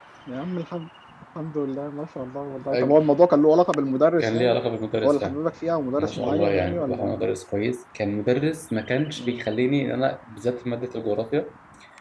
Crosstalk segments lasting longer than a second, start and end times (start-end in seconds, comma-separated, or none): 6.0-7.2